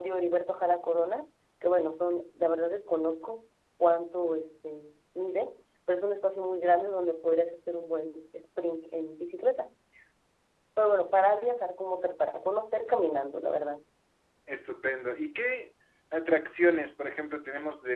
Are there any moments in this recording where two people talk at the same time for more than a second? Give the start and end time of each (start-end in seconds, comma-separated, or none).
none